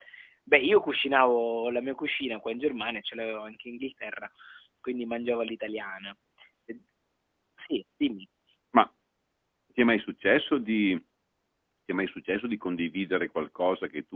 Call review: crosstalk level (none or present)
none